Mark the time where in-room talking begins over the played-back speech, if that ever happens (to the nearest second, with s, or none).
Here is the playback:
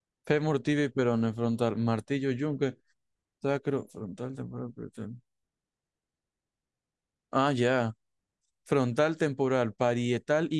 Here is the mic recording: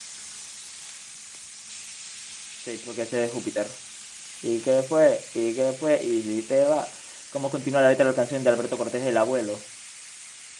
3 s